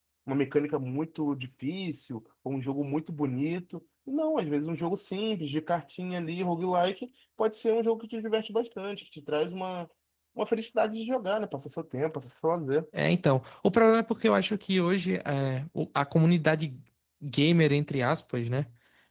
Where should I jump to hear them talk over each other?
none

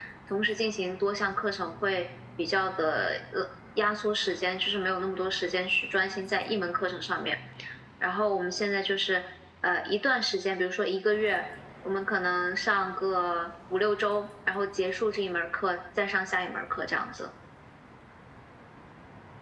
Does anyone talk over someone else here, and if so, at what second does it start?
none

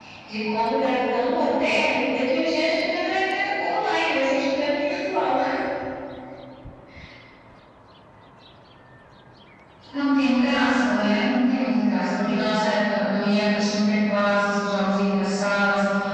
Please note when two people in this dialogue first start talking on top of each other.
none

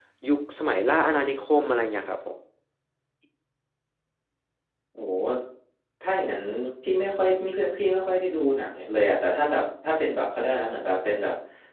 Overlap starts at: none

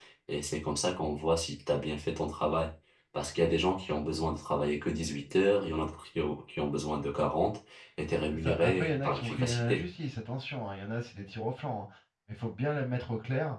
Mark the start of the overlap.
8 s

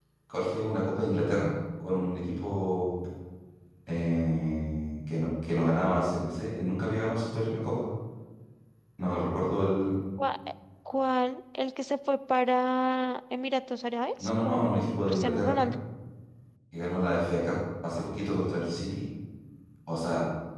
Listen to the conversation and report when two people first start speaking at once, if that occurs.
14 s

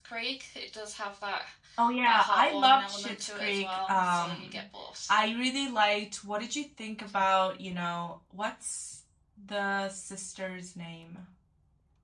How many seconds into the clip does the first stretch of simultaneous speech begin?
2 s

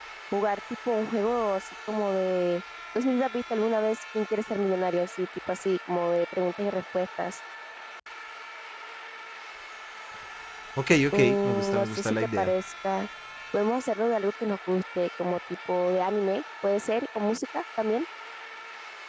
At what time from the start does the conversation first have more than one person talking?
11 s

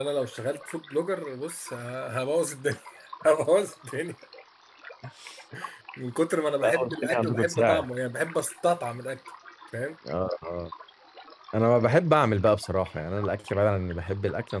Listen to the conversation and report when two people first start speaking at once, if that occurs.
7 s

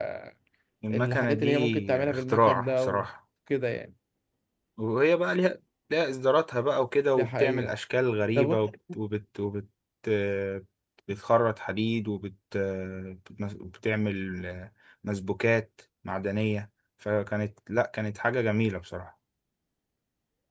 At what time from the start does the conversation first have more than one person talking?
1 s

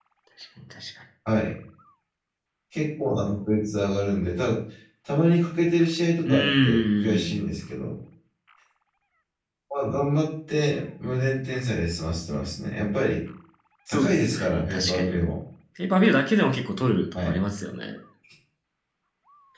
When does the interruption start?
6 s

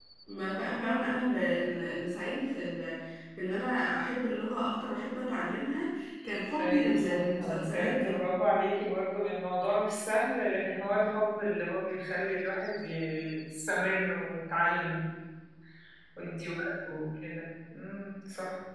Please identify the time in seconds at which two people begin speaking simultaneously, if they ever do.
7 s

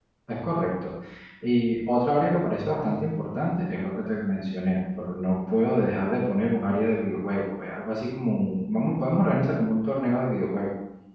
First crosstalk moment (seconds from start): none

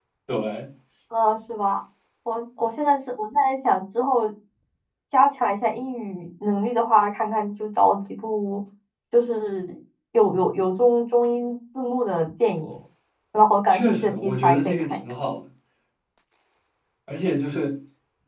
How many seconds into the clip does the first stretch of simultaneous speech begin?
14 s

